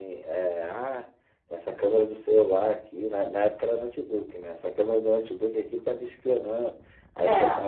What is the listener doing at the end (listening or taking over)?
listening